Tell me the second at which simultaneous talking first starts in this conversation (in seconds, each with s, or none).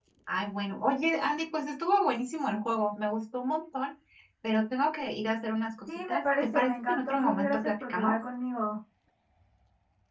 5.9 s